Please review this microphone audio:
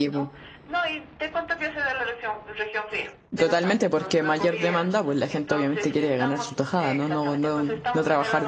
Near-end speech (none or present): present